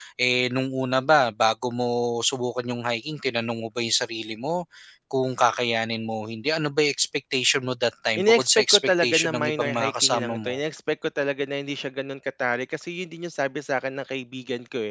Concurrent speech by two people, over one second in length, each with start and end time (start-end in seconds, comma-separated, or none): 8.2-10.6